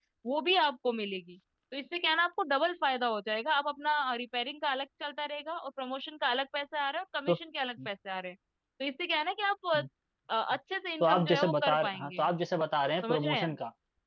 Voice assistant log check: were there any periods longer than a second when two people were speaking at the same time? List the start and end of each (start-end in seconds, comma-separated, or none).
11.0-12.2